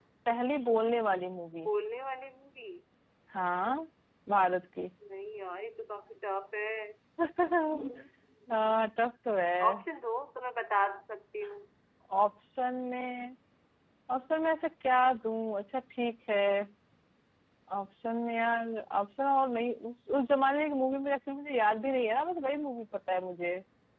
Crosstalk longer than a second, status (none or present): none